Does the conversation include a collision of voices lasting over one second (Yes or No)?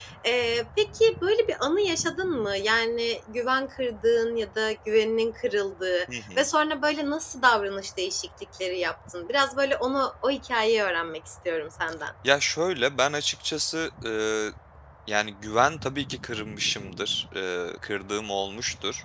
No